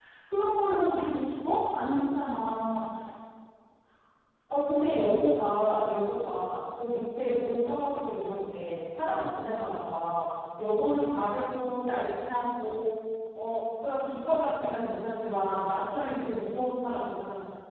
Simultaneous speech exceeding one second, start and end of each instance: none

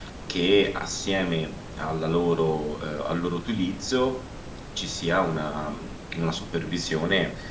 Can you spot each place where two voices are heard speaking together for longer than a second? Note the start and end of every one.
none

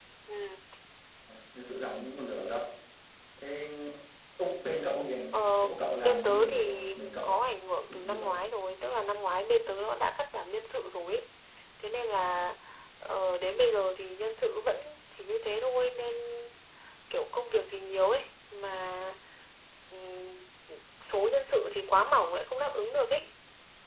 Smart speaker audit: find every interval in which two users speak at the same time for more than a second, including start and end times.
6.0-7.4

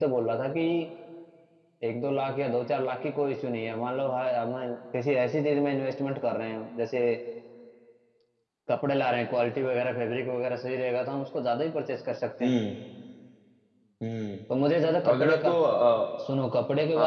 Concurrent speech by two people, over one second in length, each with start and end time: none

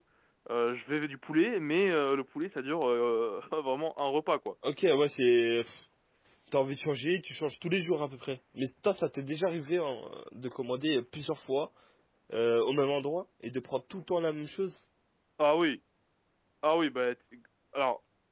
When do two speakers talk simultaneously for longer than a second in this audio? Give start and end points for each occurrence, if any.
none

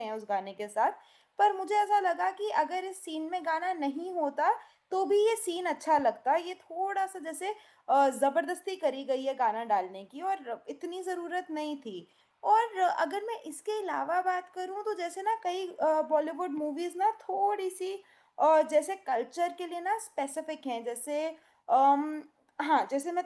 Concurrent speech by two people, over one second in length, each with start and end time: none

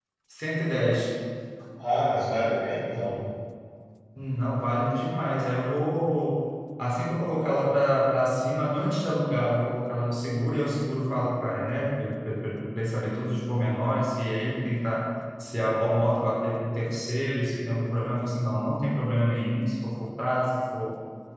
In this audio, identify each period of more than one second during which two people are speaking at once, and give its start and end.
none

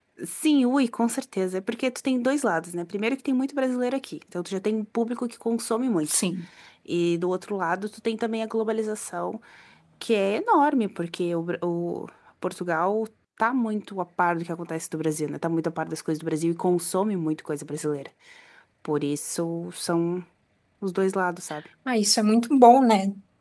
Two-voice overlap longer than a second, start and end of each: none

